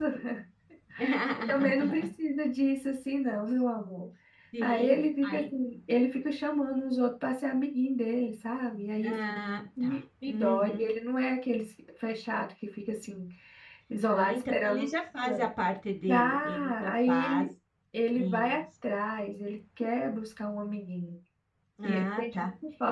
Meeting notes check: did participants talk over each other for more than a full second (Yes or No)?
Yes